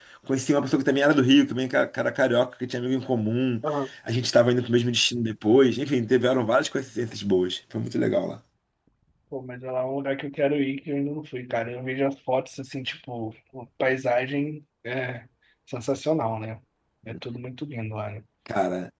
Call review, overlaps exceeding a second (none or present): none